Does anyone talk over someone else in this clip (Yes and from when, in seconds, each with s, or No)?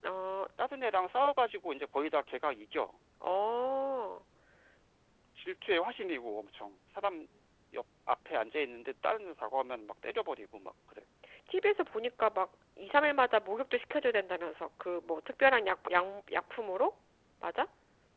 No